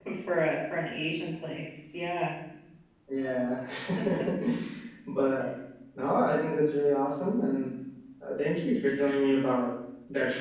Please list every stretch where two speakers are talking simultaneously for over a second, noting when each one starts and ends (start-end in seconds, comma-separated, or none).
none